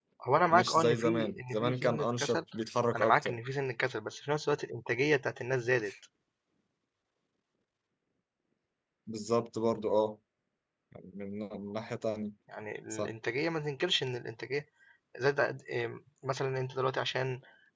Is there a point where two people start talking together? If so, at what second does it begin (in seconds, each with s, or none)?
0.5 s